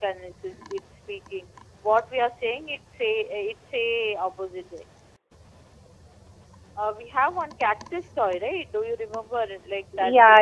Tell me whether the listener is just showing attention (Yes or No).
No